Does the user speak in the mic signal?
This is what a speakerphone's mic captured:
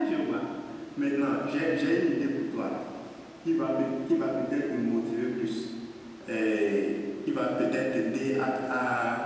No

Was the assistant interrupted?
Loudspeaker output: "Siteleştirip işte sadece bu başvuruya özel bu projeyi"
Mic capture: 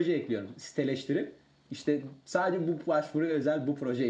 No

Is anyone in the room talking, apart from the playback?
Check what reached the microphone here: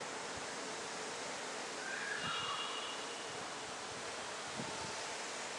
No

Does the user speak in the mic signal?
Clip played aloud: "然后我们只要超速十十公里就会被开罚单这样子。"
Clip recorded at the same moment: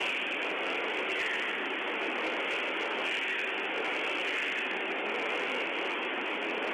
No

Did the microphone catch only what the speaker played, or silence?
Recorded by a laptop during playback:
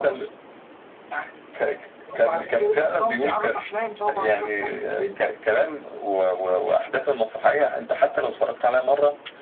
Yes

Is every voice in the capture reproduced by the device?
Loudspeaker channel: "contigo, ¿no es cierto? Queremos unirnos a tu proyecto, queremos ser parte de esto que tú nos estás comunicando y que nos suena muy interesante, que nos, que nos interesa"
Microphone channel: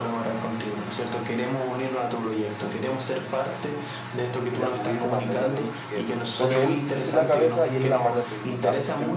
No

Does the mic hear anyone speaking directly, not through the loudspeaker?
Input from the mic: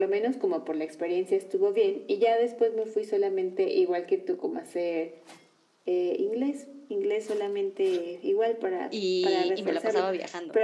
Yes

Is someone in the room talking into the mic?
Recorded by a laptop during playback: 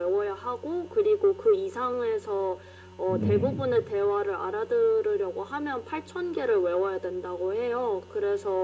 Yes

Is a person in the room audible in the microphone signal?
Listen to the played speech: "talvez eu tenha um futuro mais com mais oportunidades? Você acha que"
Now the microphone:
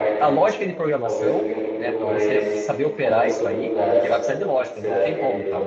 Yes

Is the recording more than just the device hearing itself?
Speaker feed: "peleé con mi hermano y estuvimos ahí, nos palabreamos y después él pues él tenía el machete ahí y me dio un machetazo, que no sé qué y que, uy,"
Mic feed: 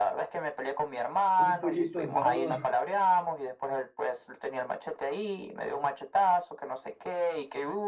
Yes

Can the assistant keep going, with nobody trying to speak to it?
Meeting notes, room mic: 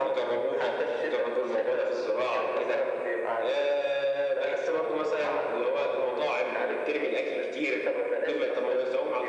Yes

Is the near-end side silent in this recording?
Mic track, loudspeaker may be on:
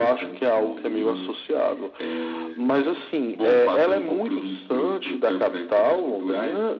Yes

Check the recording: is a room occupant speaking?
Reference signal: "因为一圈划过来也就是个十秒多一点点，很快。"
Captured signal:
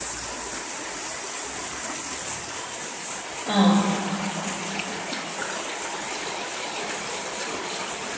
Yes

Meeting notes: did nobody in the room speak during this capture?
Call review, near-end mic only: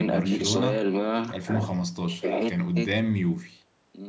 No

